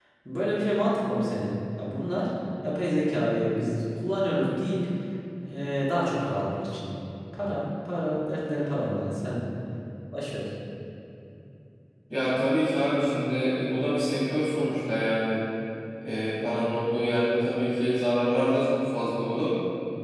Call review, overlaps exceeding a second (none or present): none